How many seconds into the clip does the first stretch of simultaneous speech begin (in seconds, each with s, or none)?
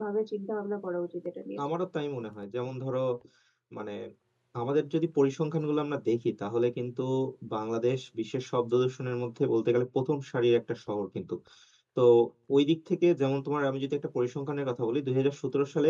none